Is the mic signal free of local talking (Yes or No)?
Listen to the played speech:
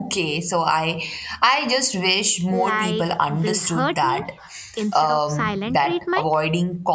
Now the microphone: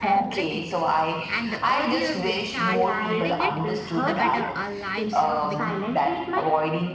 No